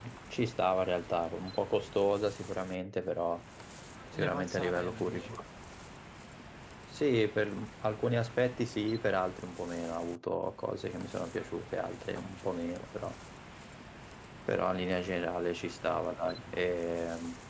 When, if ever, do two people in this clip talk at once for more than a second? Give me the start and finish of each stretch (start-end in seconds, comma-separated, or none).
4.2-5.4